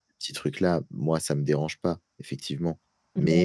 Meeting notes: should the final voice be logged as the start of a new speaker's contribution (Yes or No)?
No